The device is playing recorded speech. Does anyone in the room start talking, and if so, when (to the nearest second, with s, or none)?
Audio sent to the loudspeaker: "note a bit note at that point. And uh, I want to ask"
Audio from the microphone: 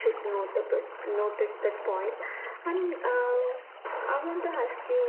none